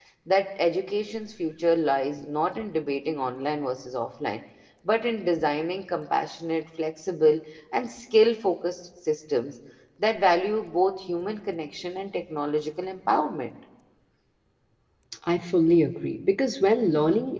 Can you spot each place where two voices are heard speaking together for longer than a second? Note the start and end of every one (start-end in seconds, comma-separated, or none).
none